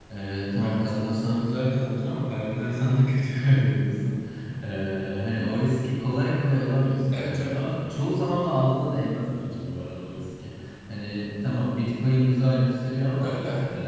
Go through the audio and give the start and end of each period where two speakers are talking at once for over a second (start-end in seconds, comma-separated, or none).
none